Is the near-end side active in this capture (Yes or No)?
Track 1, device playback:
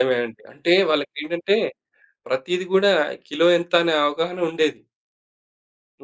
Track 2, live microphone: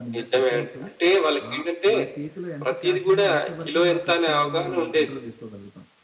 Yes